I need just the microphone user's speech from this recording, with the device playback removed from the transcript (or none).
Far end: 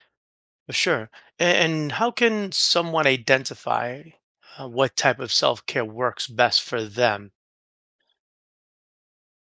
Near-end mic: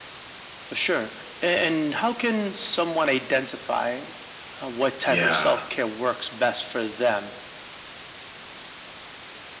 yeah.